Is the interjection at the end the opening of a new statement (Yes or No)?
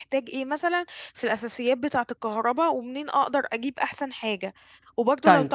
No